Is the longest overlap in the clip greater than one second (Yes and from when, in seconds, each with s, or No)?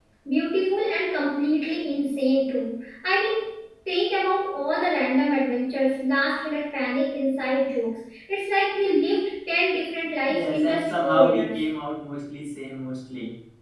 Yes, from 10.3 s